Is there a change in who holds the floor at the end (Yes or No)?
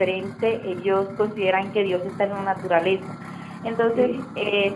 No